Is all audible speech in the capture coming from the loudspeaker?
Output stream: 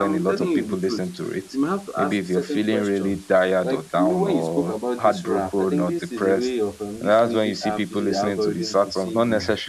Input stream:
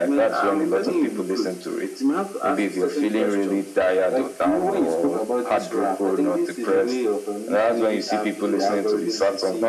Yes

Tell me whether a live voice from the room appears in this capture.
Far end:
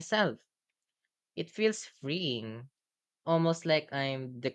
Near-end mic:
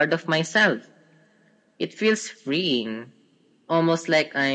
No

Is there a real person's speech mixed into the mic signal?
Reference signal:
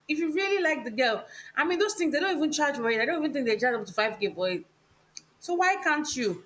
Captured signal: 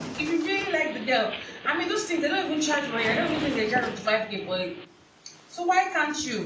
No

